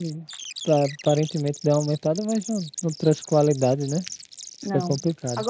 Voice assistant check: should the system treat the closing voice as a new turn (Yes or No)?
Yes